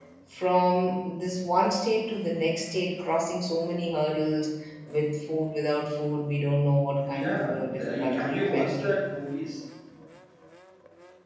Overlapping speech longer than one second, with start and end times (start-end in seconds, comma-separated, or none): 7.1-8.9